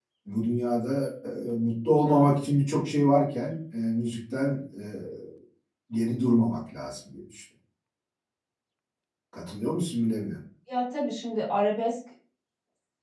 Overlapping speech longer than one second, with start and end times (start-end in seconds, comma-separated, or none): none